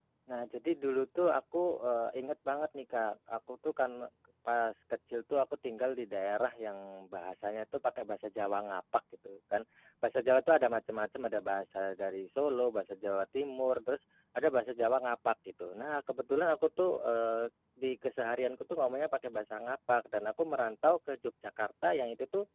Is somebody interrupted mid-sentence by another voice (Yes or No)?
No